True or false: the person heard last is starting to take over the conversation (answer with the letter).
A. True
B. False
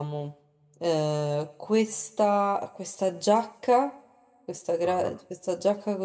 B